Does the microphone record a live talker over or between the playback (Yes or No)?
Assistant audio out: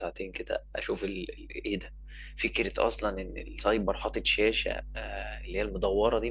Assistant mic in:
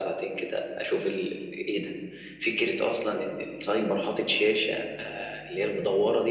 No